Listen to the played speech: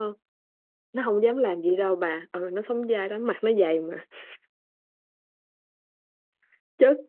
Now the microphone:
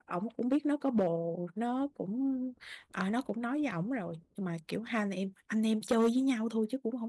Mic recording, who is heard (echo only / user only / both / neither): user only